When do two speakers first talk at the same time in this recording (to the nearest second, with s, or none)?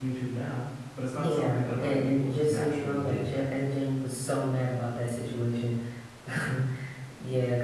1 s